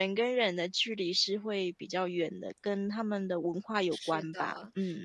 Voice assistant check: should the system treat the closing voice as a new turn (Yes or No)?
Yes